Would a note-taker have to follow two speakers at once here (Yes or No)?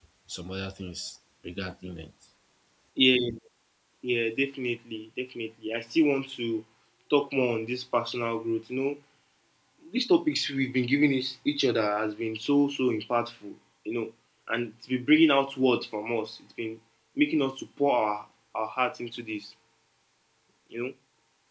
No